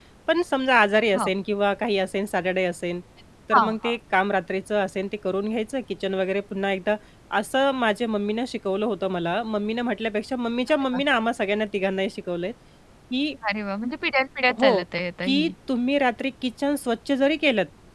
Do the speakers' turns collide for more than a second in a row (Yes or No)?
No